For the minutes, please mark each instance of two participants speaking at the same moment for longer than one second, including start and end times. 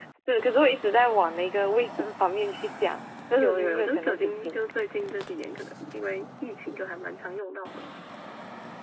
3.4-4.6

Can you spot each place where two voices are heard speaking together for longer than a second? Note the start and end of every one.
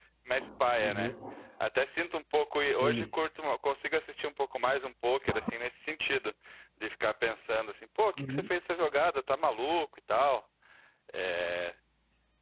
none

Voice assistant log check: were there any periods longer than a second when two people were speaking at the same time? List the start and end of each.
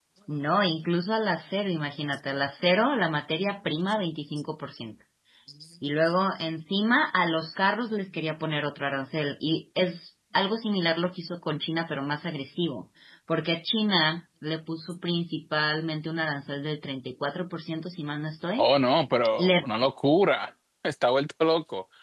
none

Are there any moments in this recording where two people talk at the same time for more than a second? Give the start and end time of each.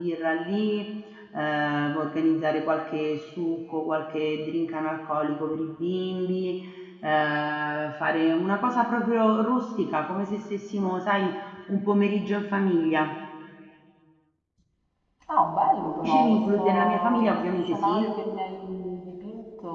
16.0-18.0

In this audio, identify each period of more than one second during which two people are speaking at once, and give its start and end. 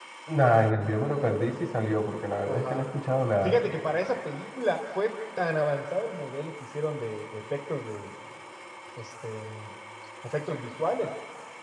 none

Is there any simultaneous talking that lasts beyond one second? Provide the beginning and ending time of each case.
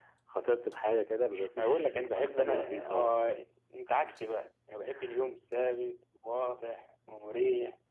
1.6-3.2

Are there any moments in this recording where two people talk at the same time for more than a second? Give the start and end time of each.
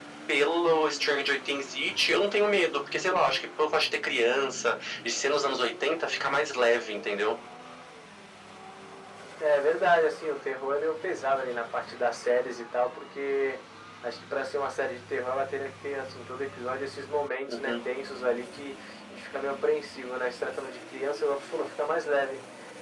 none

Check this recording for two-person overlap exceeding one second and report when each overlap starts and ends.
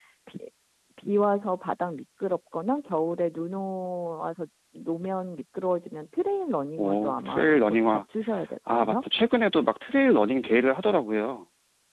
6.8-8.0

